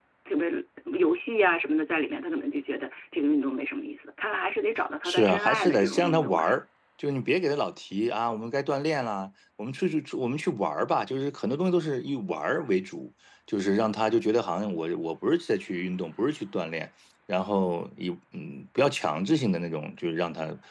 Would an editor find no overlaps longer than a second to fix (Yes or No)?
No